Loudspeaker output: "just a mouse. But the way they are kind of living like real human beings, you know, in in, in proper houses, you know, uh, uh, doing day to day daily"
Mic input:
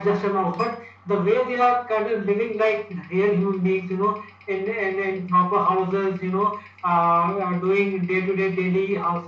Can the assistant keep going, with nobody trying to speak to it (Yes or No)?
Yes